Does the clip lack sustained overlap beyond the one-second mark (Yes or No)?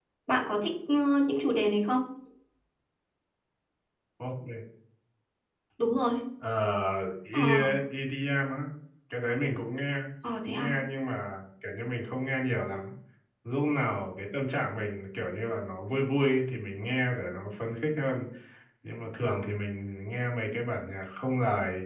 Yes